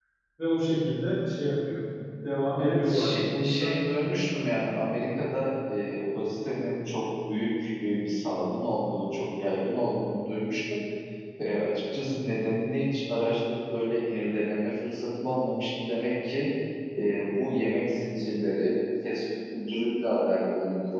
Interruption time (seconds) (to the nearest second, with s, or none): 3 s